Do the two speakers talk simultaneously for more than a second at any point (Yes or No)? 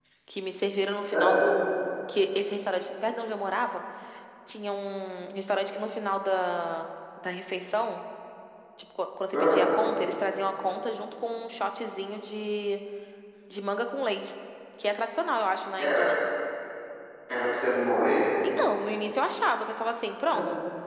No